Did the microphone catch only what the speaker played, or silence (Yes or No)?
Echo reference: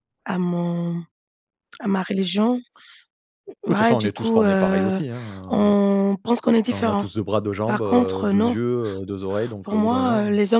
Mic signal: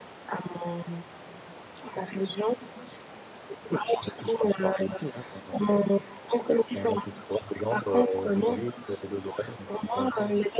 Yes